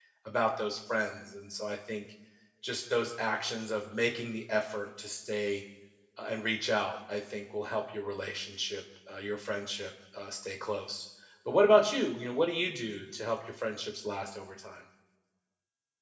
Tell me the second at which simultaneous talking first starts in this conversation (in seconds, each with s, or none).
none